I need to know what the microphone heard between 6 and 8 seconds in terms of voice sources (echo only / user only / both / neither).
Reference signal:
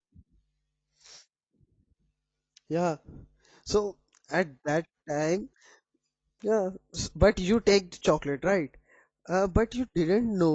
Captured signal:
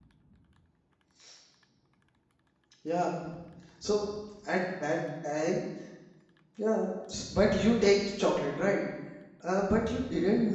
echo only